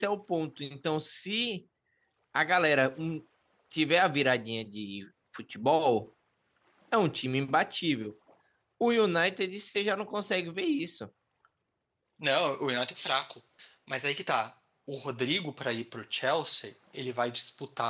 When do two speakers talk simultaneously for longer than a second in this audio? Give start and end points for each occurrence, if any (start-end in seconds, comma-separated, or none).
none